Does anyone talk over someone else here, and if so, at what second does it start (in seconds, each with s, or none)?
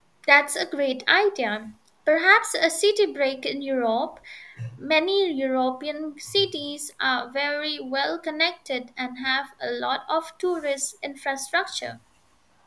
none